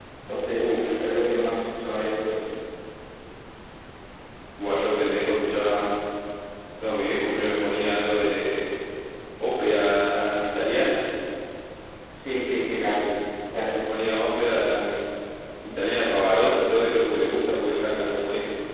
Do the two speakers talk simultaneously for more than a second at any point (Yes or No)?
No